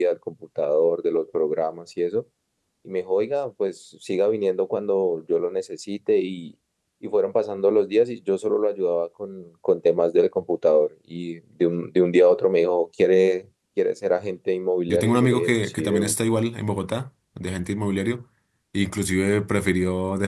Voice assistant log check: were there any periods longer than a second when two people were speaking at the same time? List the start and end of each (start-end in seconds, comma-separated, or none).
14.9-16.1